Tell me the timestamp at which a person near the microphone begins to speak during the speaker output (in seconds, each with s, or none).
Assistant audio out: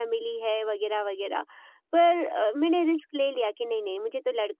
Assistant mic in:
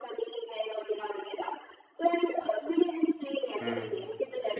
3.6 s